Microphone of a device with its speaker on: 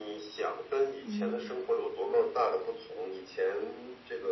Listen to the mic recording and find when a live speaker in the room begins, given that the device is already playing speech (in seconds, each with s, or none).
1.0 s